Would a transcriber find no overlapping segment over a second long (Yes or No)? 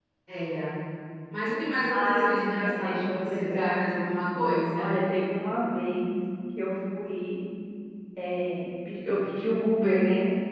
No